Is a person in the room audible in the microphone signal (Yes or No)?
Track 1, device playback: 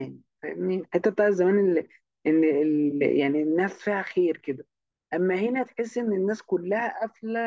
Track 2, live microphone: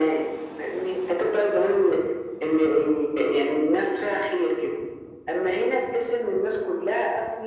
No